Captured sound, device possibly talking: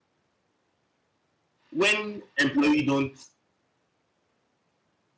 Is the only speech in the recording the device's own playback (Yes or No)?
No